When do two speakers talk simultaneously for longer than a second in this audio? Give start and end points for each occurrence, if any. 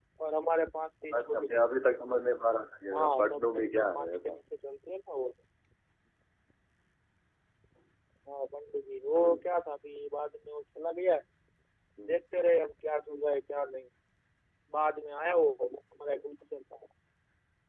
3.0-4.3

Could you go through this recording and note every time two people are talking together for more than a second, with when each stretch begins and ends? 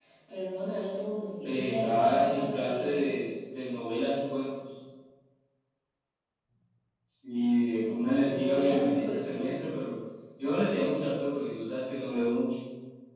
1.4-3.1, 8.2-9.5

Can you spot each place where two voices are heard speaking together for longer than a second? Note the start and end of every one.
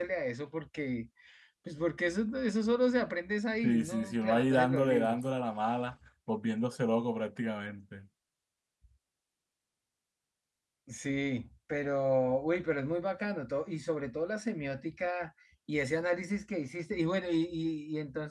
3.6-5.2

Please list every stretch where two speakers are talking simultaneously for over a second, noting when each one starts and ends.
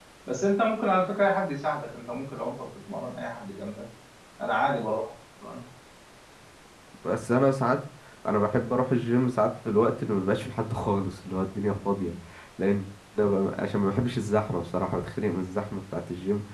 none

